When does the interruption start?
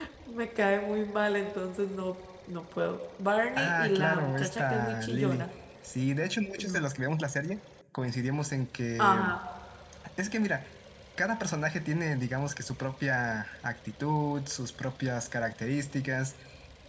3.6 s

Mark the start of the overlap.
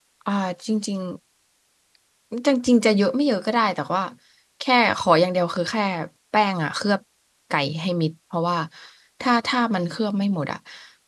none

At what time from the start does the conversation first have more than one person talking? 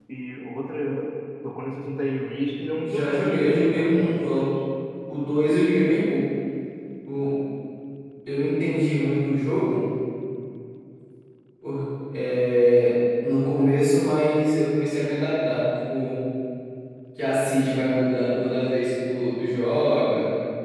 2.8 s

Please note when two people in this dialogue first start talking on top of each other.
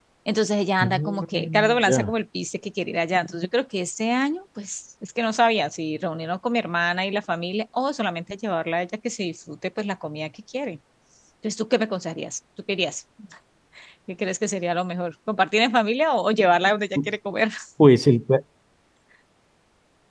0.8 s

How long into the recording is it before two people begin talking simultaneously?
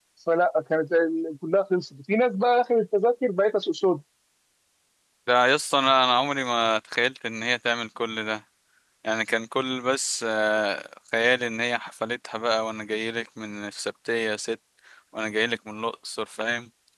none

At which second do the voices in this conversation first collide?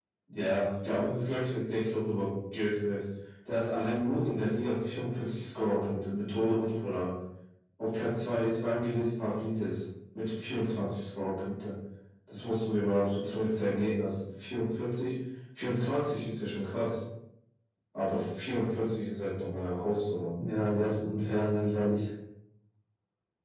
none

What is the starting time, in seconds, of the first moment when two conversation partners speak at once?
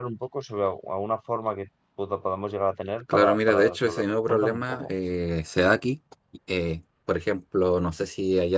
3.1 s

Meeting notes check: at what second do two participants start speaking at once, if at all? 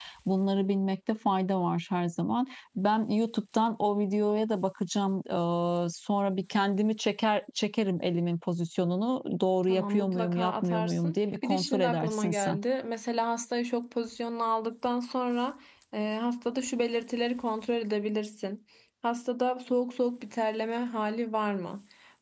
9.6 s

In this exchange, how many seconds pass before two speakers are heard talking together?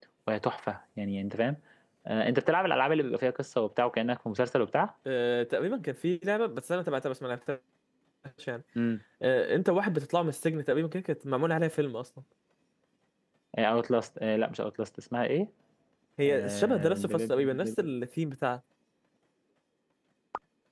16.3 s

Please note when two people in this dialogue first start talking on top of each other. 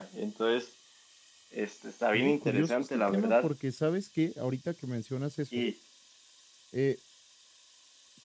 2.1 s

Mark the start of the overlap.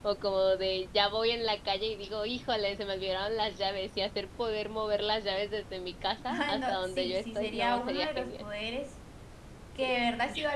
6.3 s

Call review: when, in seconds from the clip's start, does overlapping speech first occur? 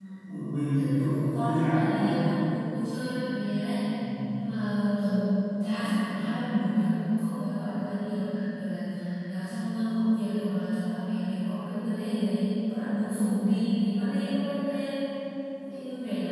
0.7 s

